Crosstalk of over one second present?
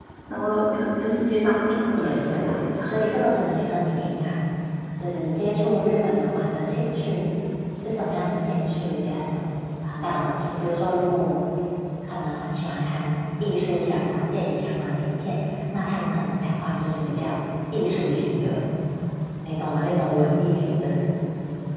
Yes, from 2.0 s

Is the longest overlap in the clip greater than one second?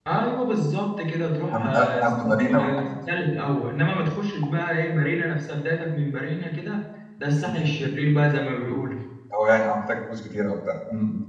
Yes, from 1.5 s

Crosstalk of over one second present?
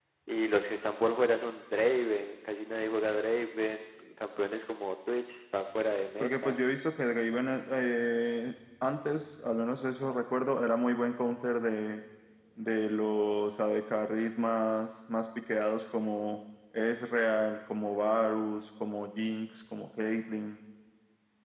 No

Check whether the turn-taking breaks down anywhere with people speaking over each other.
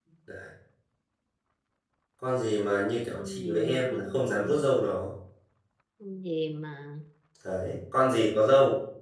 Yes, from 3.1 s

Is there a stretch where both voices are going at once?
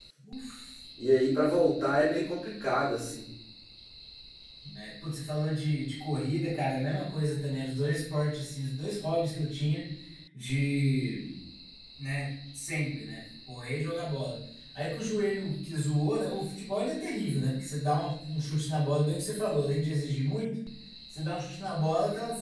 No

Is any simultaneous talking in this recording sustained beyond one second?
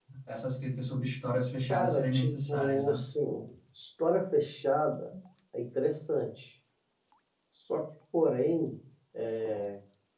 Yes, from 1.7 s

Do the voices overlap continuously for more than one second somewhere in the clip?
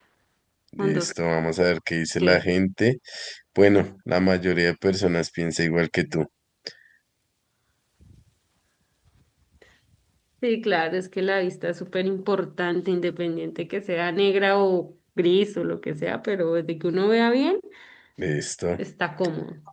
No

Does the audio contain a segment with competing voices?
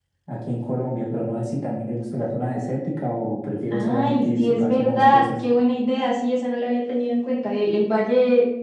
Yes, from 3.7 s

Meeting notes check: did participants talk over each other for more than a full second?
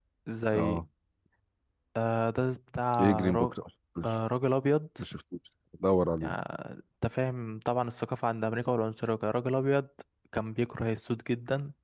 No

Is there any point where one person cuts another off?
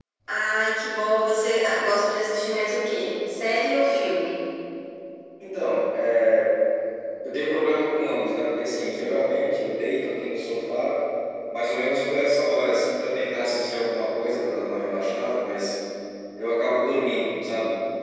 No

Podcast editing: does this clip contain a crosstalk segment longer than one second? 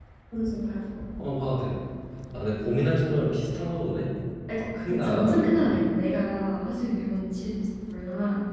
Yes, from 4.6 s

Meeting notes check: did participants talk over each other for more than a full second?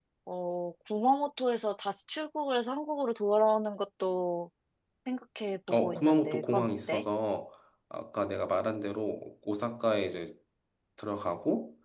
Yes, from 5.7 s

